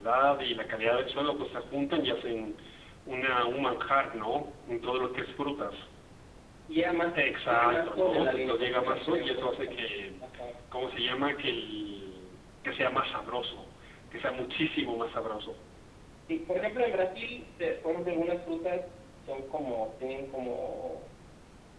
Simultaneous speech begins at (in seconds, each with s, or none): 7.1 s